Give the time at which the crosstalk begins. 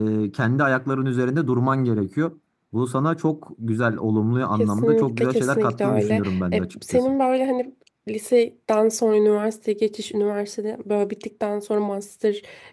4.6 s

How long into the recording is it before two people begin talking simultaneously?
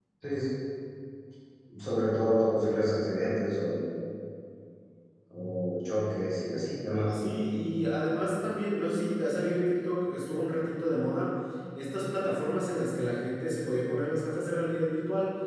none

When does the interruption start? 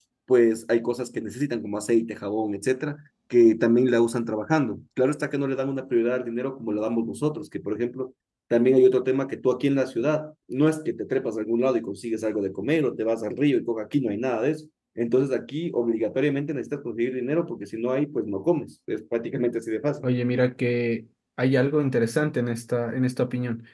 none

